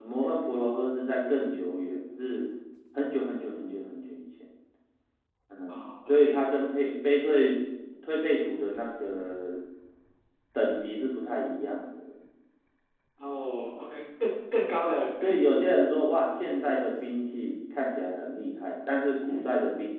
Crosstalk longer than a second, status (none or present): none